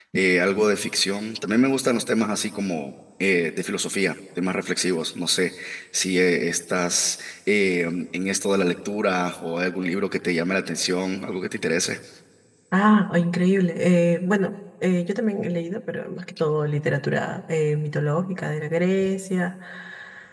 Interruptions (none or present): none